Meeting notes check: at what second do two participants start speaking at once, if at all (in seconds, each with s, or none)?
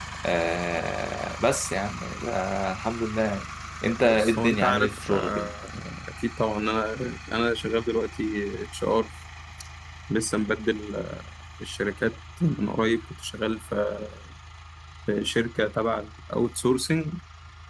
4.0 s